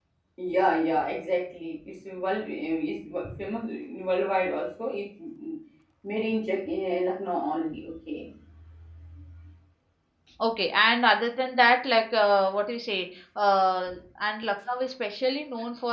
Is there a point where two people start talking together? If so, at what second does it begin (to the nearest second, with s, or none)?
none